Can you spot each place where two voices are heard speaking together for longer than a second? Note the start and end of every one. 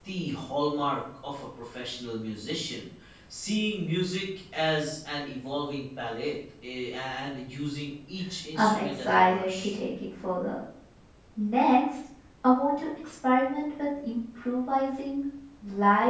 8.5-9.8

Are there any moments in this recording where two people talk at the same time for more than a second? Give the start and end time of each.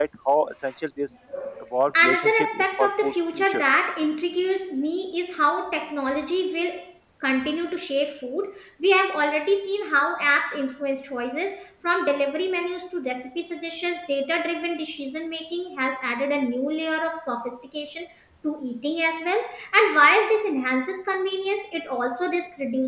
2.0-3.6

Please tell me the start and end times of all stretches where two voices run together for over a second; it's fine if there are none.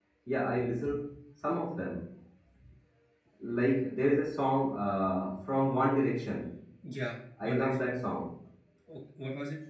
none

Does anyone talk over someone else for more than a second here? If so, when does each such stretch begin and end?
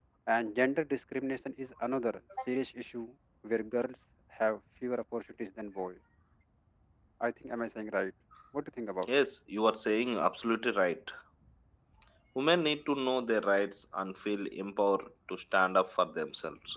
none

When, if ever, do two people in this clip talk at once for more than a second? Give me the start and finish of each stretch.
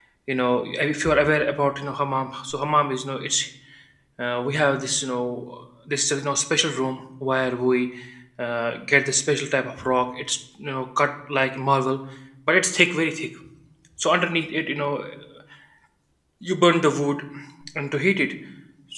none

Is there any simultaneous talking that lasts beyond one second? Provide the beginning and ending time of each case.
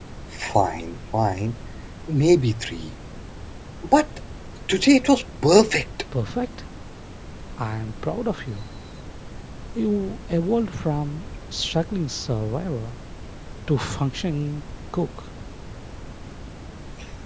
none

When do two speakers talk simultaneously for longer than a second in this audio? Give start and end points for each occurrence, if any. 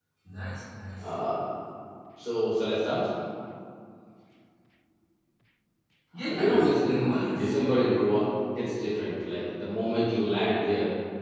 6.2-7.5

